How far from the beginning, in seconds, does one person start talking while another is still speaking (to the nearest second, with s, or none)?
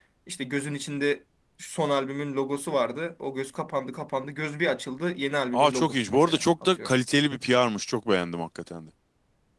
6 s